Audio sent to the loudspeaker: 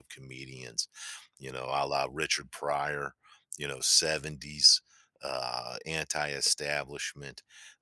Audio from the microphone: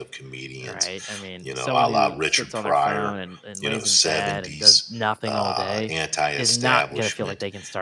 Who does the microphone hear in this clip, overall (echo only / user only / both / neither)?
both